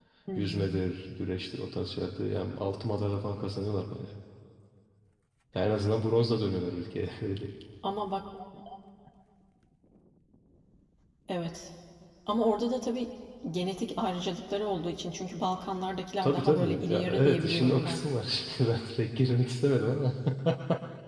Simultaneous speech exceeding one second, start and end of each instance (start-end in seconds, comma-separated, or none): 16.2-18.0